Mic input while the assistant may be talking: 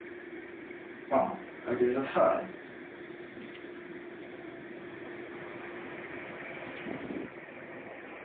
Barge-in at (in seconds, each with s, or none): 1.1 s